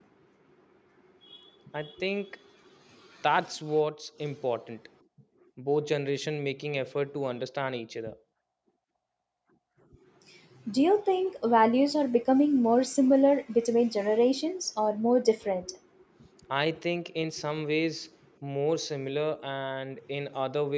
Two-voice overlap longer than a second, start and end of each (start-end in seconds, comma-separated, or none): none